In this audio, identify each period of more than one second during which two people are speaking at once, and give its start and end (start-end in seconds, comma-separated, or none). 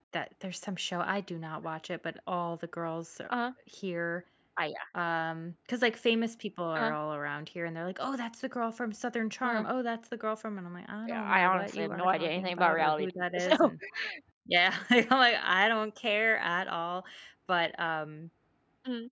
11.1-13.7